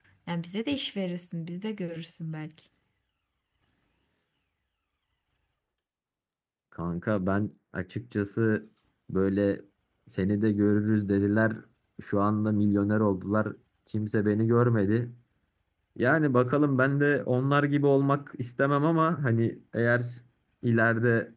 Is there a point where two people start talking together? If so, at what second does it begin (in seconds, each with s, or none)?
none